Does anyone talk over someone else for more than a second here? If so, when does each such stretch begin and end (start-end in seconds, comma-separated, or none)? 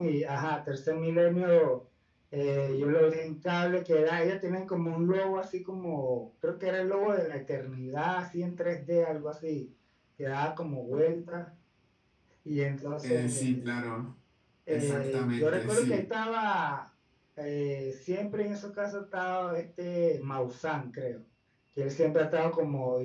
14.7-16.0